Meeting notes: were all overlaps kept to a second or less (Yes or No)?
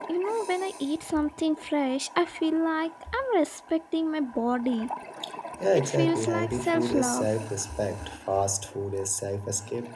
No